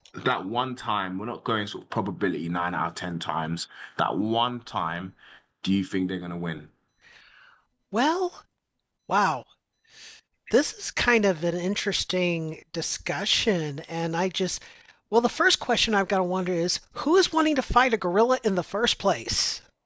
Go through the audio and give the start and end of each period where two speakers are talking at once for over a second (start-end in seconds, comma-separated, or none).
none